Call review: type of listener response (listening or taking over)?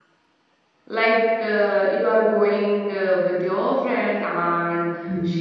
listening